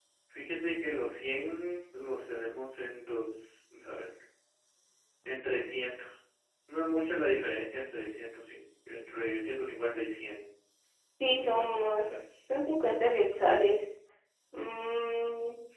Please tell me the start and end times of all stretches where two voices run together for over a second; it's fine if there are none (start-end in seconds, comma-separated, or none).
11.2-12.4